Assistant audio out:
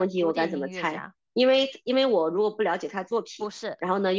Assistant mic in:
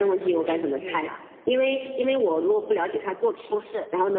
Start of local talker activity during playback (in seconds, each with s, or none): none